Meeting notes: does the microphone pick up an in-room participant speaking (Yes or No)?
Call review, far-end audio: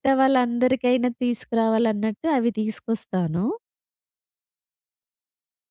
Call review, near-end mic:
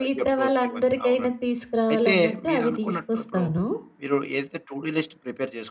Yes